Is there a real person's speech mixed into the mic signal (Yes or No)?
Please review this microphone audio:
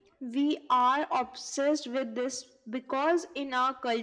No